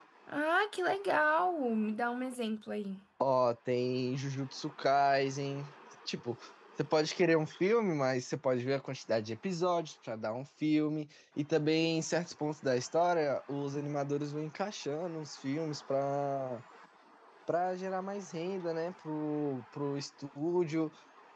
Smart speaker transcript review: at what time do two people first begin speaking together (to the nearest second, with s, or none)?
none